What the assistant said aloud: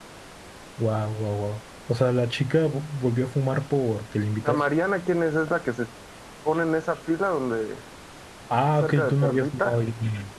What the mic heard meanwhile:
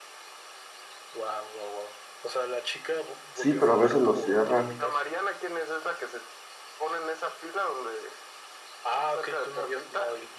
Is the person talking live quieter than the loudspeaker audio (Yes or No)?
No